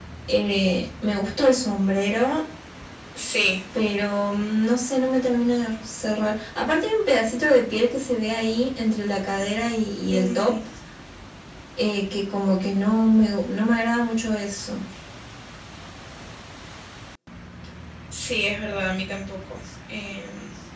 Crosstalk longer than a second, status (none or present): none